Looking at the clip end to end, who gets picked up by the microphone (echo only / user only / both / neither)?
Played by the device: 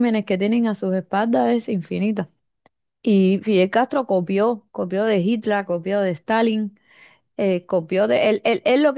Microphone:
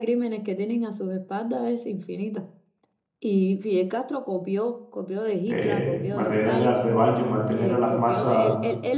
both